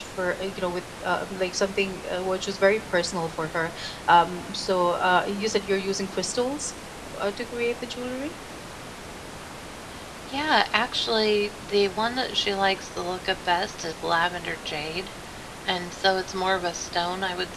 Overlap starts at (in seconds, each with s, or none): none